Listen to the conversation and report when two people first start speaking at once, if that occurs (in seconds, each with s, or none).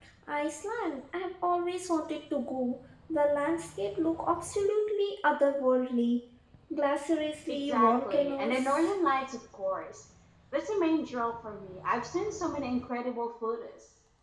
7.5 s